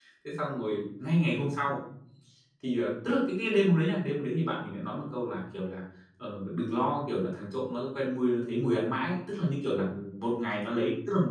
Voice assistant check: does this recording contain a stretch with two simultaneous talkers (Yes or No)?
No